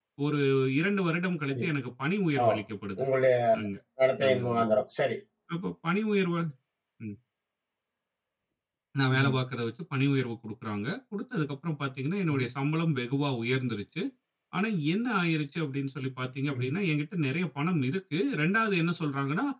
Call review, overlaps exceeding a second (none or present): none